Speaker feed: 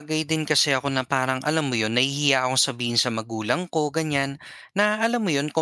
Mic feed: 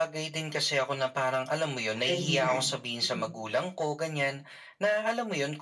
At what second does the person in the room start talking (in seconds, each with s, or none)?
1.9 s